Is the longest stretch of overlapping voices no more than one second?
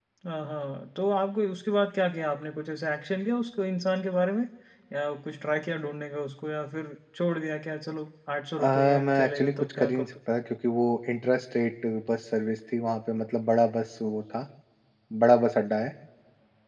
No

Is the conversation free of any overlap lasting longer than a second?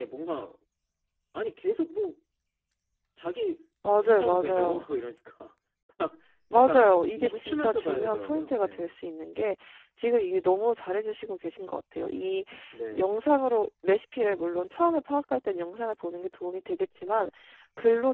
No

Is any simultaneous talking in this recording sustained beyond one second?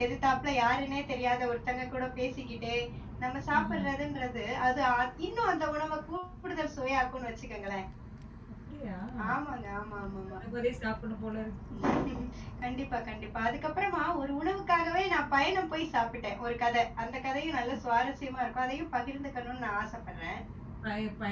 No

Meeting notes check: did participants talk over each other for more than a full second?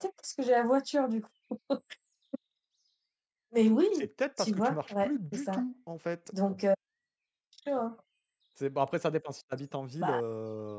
Yes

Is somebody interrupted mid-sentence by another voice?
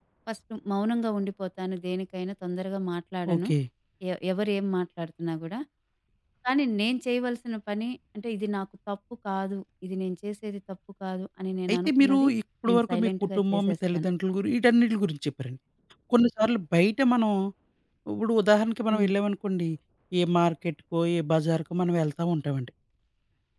Yes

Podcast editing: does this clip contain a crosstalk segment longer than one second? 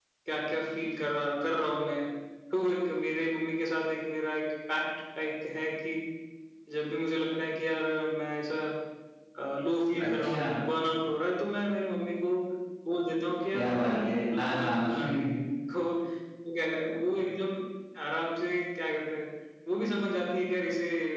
Yes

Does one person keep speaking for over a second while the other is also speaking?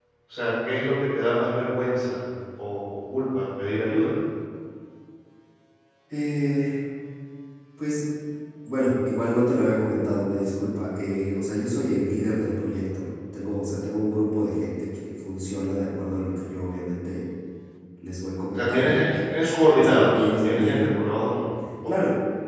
Yes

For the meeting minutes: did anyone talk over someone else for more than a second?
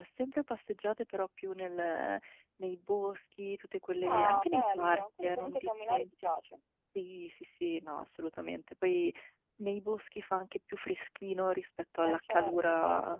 Yes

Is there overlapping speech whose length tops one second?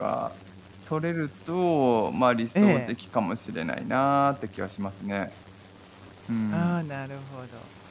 No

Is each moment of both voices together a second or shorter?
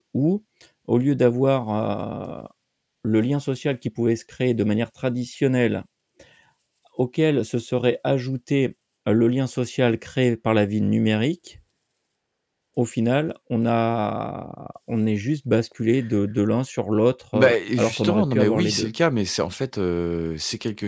No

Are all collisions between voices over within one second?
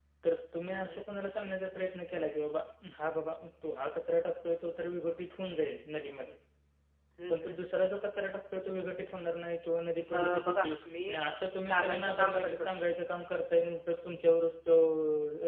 No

